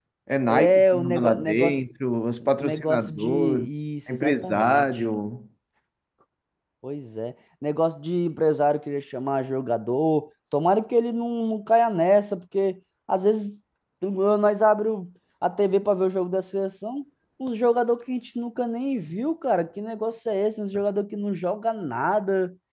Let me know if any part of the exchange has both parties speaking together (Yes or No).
Yes